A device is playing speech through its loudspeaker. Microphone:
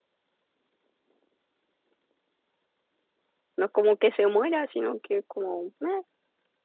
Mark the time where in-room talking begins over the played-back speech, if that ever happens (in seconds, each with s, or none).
3.5 s